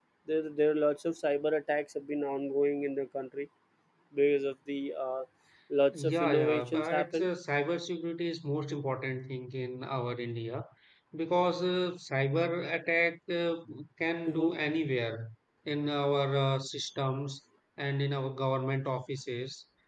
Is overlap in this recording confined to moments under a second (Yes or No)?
No